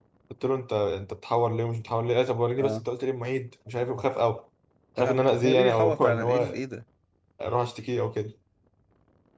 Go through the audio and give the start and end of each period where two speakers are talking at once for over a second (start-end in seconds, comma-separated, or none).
5.0-6.6